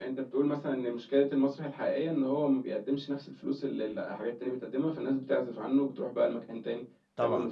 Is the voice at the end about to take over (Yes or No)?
Yes